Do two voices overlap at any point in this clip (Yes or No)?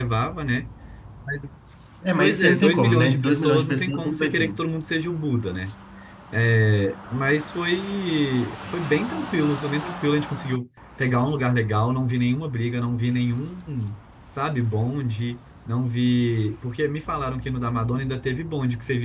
Yes